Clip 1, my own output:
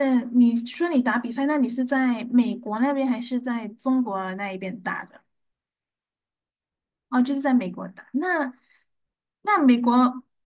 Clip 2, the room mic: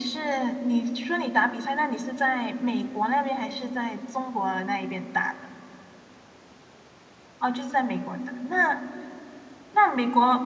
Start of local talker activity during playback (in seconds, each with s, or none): none